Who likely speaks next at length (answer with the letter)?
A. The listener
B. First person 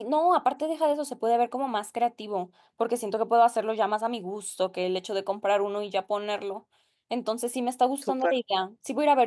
B